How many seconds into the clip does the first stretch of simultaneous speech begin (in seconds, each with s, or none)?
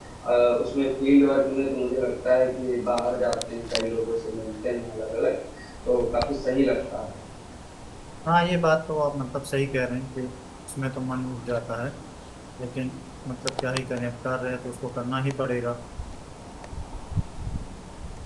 none